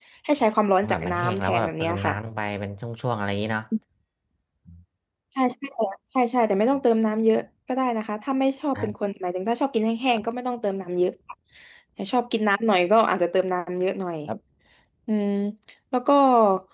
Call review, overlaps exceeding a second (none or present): present